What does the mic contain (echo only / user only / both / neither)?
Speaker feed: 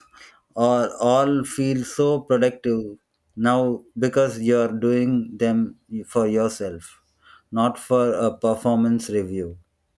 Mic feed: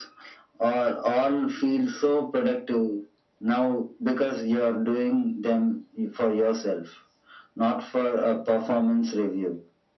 echo only